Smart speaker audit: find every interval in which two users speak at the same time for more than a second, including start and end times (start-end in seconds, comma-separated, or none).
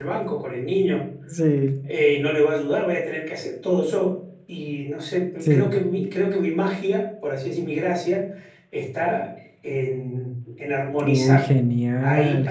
none